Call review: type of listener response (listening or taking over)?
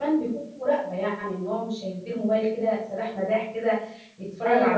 listening